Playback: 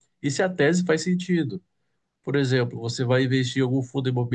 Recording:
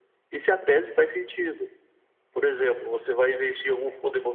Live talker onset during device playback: none

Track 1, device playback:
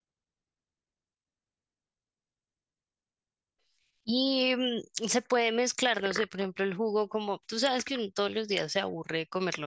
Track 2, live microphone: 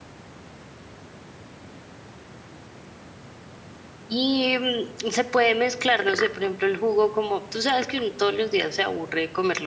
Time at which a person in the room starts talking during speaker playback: none

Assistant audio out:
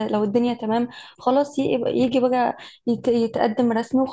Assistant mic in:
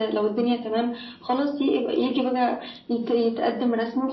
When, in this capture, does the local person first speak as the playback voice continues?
none

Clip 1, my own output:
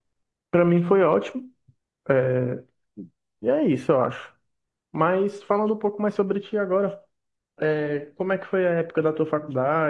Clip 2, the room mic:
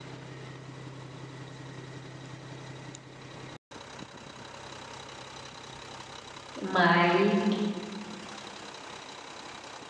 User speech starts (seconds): 6.6 s

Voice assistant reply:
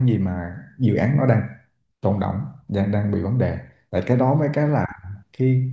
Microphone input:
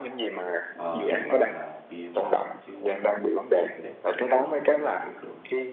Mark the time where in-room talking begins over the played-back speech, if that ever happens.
0.8 s

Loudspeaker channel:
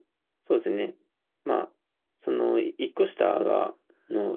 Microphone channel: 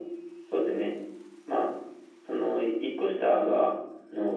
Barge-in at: none

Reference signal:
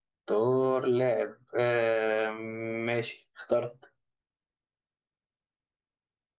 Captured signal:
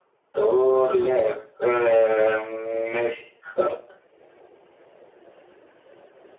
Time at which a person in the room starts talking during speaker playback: none

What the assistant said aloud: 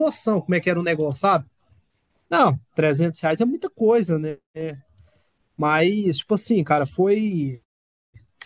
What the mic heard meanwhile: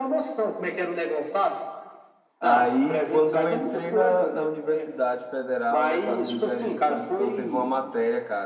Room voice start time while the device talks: 2.4 s

